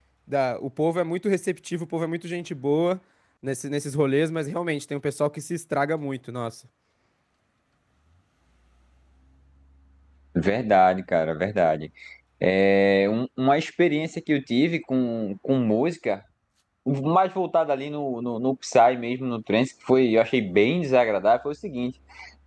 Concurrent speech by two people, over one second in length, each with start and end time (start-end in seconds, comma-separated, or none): none